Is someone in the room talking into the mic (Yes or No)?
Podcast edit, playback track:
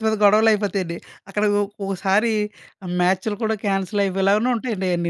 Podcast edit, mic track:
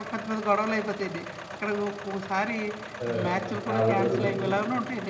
Yes